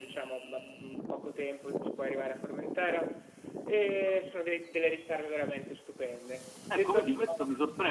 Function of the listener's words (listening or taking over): taking over